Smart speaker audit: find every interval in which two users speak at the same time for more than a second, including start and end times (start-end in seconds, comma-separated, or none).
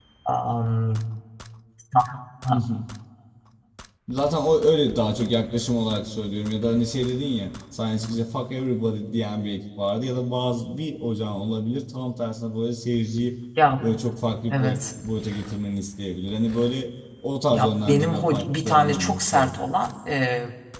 17.5-19.6